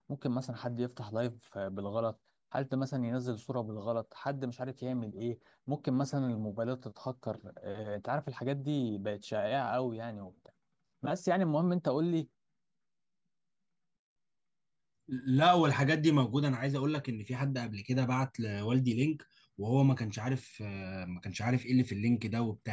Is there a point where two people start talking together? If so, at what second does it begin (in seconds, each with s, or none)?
none